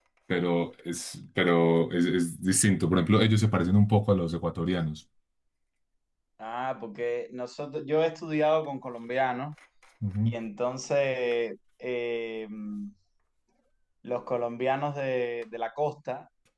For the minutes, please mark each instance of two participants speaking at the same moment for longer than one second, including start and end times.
none

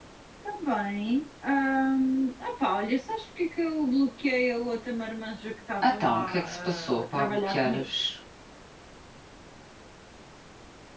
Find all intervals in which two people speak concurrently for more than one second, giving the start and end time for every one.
5.8-7.8

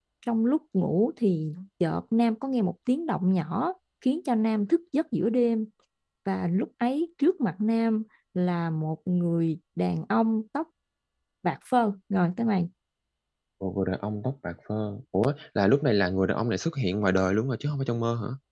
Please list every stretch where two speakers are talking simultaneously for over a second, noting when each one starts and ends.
none

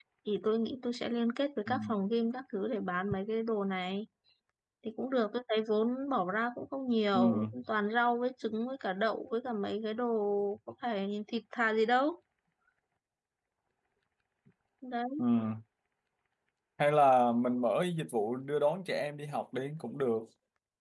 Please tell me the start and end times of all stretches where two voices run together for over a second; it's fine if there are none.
none

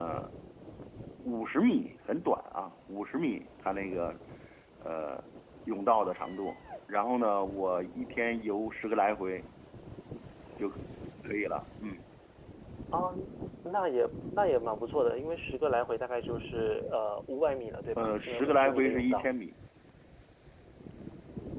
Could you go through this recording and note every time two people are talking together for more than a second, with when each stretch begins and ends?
18.0-19.2

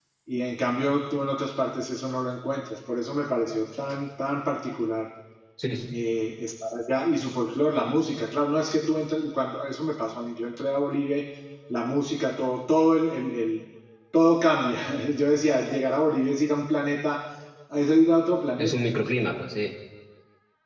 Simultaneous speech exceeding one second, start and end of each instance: none

